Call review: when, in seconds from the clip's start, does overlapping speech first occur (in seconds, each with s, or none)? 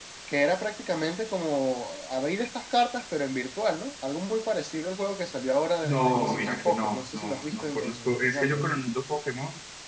5.8 s